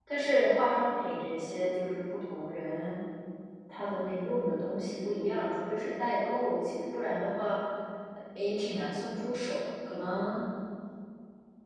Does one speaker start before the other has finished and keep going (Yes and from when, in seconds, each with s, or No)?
No